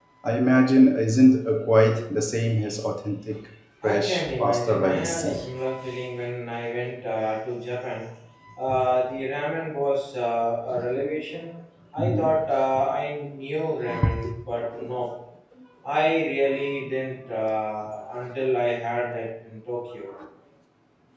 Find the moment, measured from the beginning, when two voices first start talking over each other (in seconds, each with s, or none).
3.8 s